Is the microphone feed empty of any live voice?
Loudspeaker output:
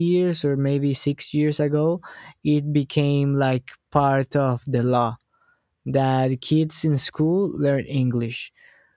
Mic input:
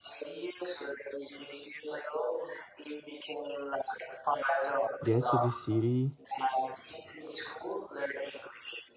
No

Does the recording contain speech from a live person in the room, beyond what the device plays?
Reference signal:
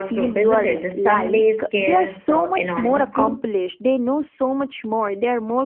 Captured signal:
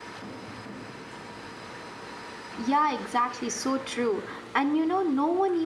Yes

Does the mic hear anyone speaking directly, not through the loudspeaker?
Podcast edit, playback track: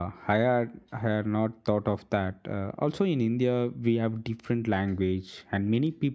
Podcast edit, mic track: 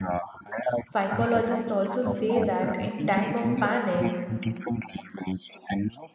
Yes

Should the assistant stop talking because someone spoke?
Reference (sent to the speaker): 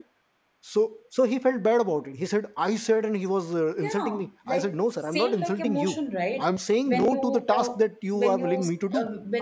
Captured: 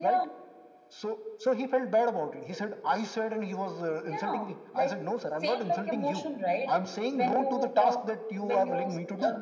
No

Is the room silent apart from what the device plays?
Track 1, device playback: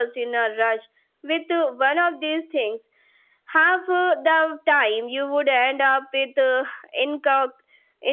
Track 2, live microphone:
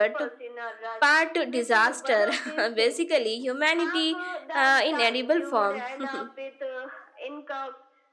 No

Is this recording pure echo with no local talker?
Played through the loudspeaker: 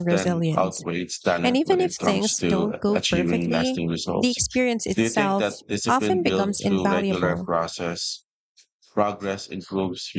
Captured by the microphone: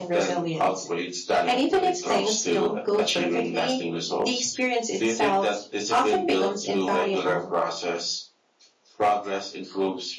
Yes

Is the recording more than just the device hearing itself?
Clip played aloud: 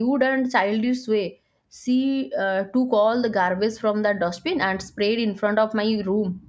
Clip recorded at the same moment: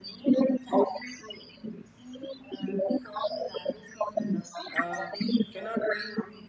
Yes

